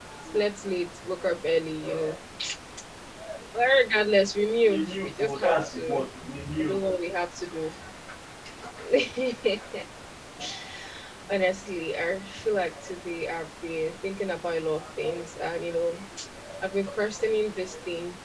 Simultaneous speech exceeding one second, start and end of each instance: 4.7-6.0

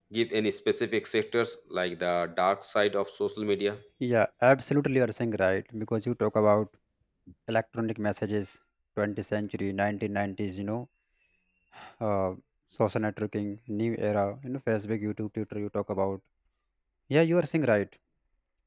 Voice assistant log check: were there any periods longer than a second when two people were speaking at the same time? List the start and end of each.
none

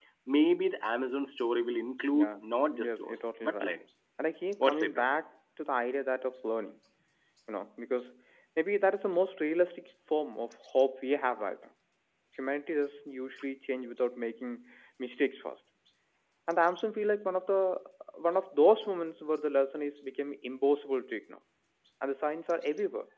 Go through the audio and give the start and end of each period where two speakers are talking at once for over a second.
2.1-3.7

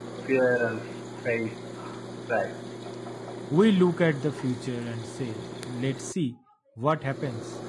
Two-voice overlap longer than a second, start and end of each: none

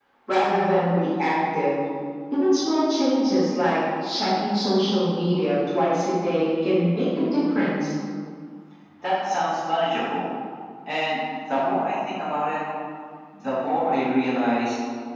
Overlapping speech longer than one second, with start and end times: none

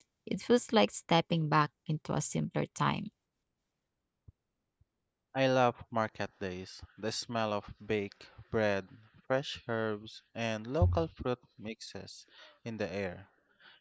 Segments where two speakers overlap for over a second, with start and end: none

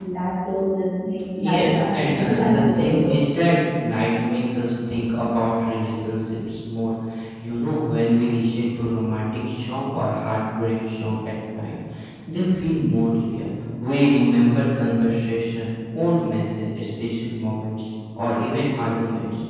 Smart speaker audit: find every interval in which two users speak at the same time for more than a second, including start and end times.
1.5-3.2

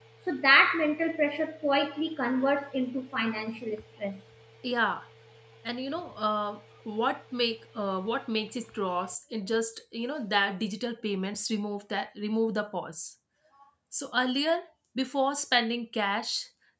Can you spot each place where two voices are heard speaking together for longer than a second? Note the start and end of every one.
none

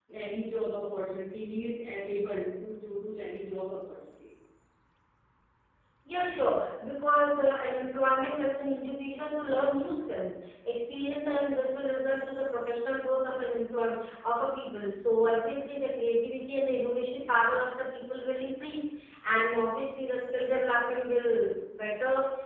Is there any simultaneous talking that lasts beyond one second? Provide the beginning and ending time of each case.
none

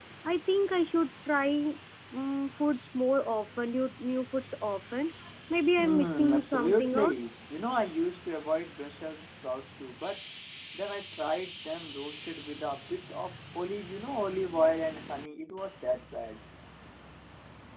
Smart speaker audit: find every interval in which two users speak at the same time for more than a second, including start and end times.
5.8-7.1

